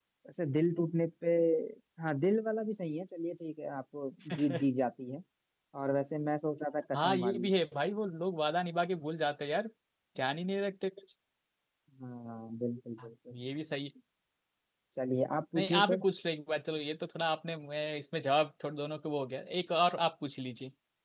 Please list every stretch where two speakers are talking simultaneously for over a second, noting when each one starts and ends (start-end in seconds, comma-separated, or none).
none